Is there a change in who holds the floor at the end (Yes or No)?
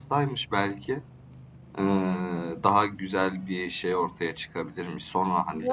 Yes